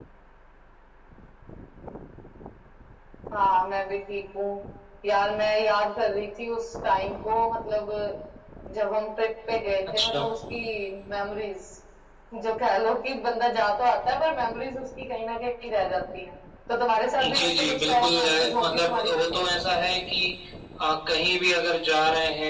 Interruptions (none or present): present